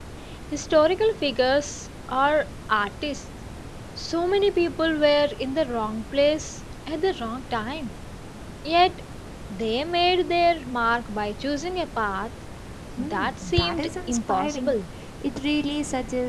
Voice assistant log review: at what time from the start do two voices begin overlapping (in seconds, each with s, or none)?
13.0 s